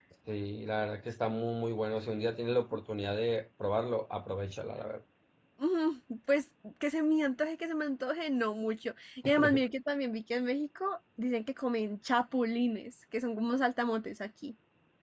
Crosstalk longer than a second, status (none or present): none